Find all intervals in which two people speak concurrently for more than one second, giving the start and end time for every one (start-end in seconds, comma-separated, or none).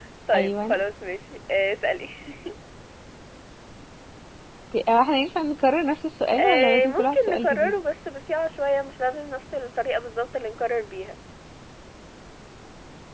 6.4-7.7